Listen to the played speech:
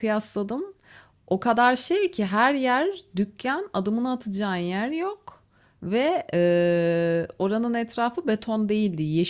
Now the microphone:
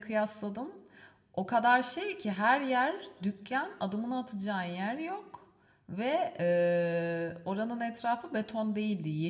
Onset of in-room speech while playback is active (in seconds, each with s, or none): none